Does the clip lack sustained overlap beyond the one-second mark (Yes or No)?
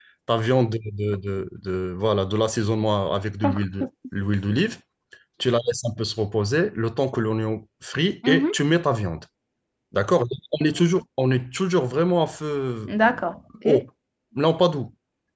Yes